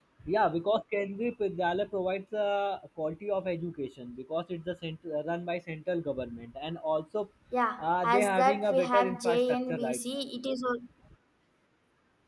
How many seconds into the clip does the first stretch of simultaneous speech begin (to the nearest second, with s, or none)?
8 s